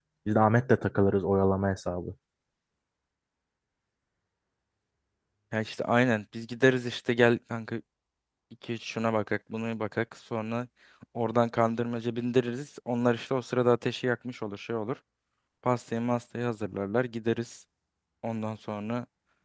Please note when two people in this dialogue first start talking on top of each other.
none

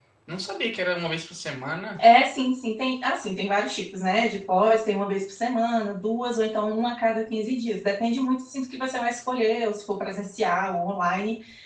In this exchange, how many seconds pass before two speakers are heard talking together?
none

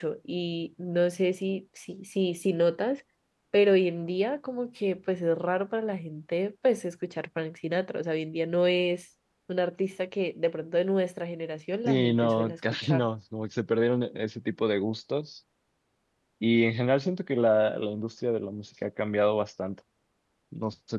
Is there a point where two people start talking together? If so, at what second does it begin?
12 s

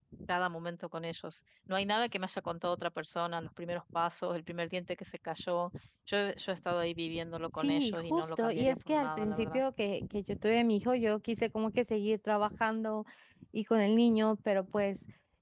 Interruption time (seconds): 8 s

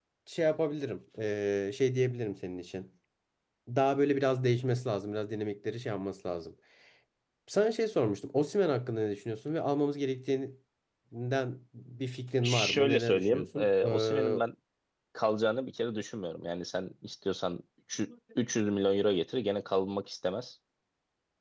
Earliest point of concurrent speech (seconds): 12 s

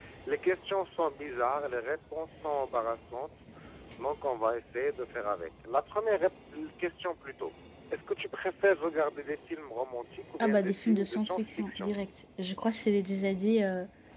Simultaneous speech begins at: 10 s

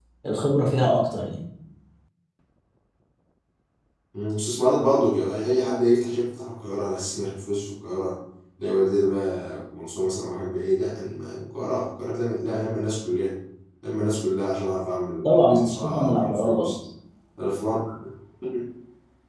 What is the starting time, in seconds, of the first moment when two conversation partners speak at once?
15 s

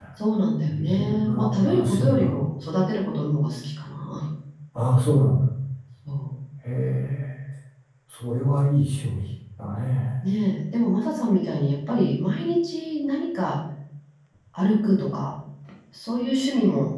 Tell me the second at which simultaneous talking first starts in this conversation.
1 s

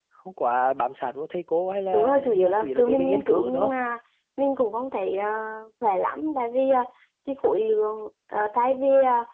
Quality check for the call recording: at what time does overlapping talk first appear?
2 s

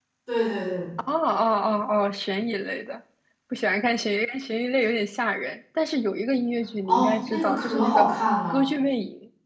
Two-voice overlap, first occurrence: 7 s

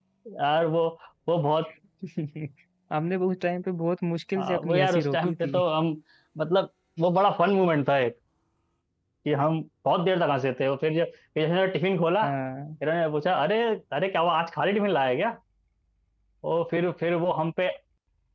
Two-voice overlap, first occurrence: 4 s

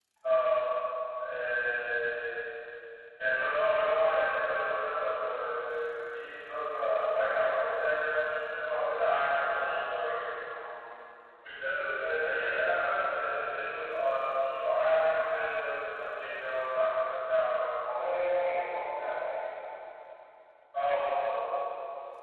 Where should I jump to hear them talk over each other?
none

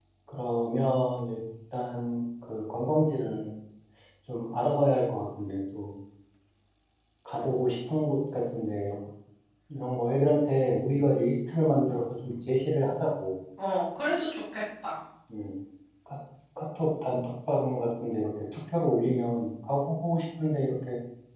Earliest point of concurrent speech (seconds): none

